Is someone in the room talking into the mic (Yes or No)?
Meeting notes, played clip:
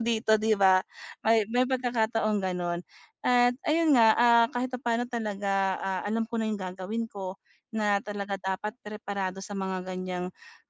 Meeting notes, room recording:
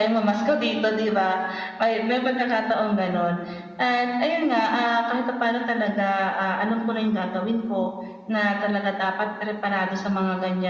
No